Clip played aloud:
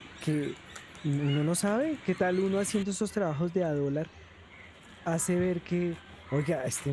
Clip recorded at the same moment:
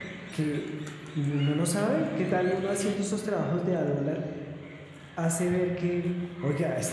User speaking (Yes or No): No